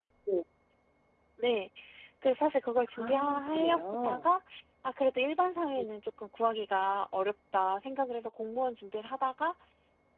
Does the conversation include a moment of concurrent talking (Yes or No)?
Yes